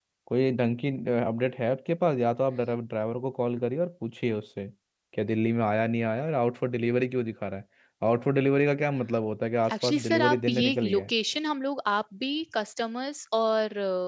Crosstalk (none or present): present